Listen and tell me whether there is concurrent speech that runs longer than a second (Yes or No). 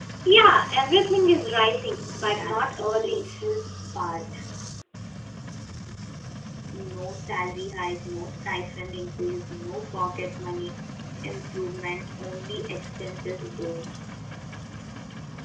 Yes